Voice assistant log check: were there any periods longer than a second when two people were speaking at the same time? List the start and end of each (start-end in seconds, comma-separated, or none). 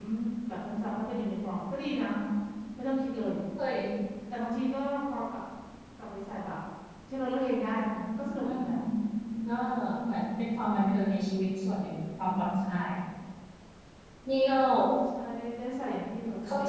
none